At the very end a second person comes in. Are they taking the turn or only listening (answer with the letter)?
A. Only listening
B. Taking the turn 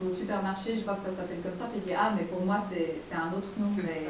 B